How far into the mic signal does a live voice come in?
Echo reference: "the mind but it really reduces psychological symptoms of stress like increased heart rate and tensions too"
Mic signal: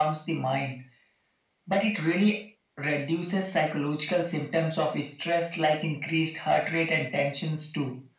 none

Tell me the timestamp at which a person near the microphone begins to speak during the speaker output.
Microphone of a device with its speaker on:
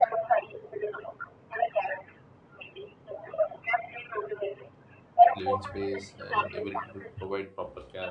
5.3 s

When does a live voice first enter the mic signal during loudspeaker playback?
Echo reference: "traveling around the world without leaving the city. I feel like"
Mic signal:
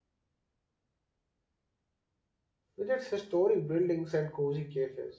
2.8 s

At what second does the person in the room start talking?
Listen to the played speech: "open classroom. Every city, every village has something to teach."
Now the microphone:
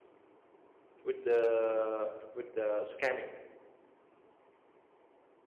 1.0 s

